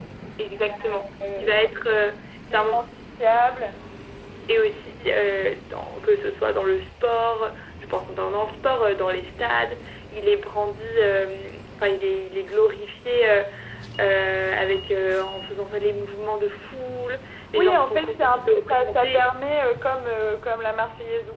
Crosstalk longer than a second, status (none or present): present